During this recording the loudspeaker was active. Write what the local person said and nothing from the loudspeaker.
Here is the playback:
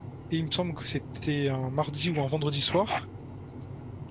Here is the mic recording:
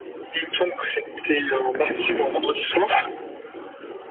Mais c'est cool,

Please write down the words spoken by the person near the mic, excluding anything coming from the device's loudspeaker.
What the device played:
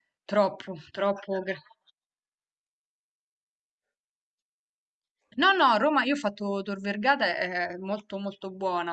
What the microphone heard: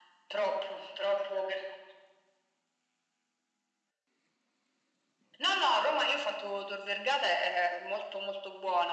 none

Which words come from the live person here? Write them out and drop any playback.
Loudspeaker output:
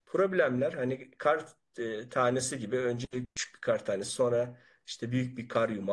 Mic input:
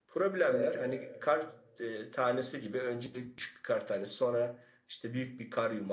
evet,

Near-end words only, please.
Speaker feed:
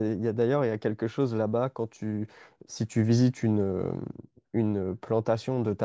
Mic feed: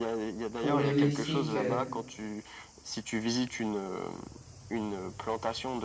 pour le Mexique, euh,

